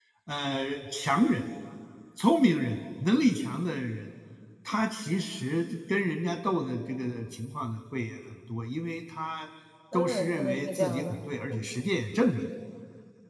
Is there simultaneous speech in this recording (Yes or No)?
Yes